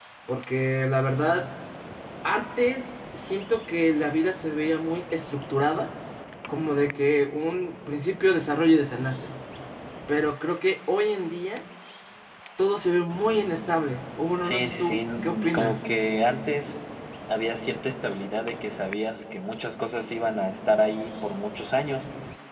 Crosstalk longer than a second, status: present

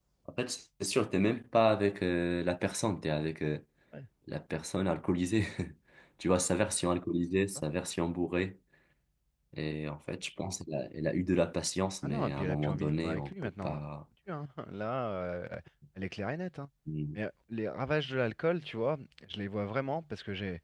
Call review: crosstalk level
present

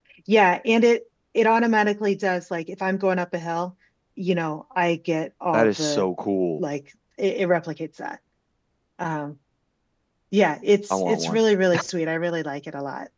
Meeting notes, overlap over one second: none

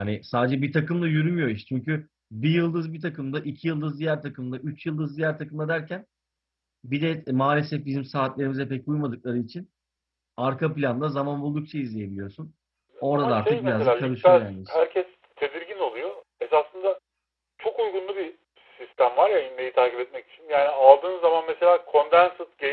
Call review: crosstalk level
present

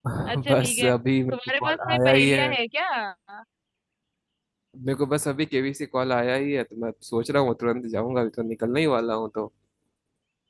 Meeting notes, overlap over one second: present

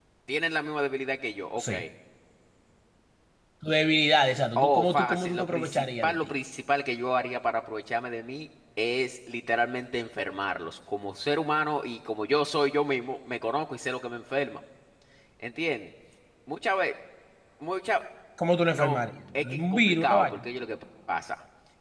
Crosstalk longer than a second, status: present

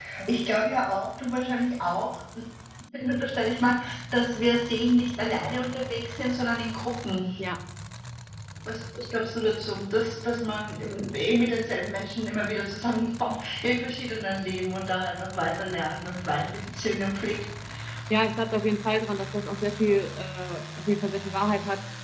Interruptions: none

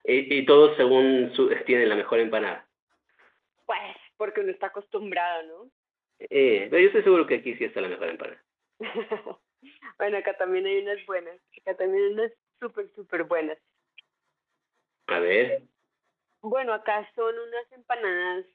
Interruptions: none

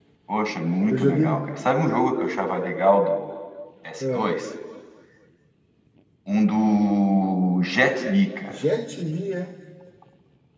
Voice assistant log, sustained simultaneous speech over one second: none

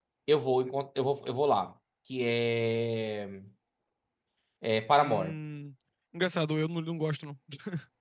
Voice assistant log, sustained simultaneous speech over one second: none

